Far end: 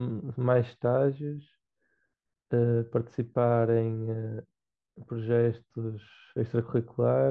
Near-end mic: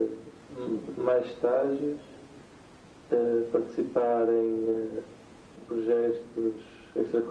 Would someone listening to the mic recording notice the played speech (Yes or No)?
Yes